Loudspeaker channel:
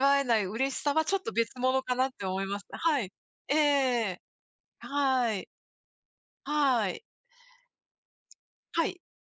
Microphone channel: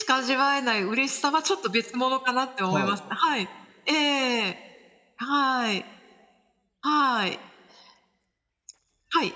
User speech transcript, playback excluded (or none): はい。